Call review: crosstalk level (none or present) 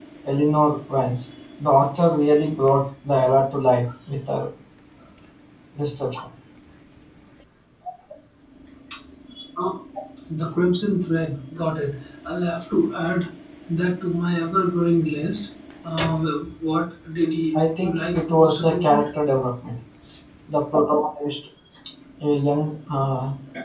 present